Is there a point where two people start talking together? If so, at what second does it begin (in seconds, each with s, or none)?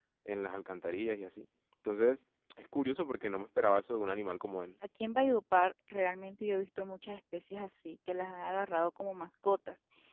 none